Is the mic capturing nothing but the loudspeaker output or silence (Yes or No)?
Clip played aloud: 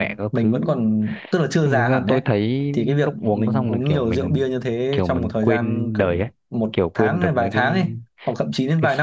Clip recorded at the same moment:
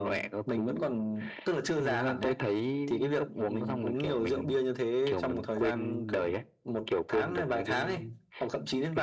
Yes